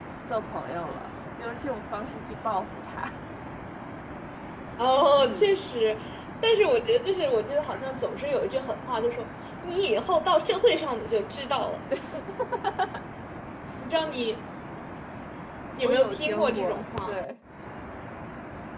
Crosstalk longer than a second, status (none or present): present